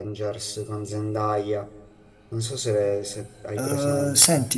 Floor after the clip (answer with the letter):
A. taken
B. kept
A